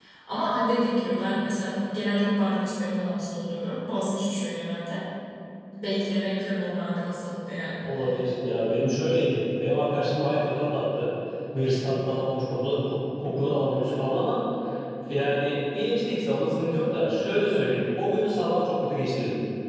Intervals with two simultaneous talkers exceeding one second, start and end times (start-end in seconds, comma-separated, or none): none